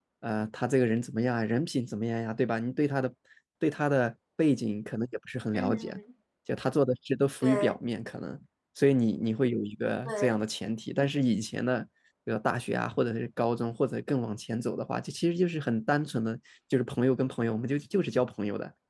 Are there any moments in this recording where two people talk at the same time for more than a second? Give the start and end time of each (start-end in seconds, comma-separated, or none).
none